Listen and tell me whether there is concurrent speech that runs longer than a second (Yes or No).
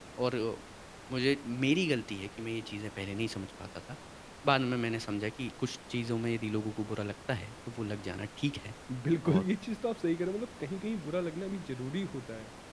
No